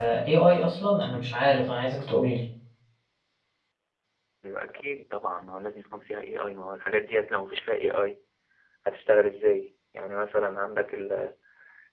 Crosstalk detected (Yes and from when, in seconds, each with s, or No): No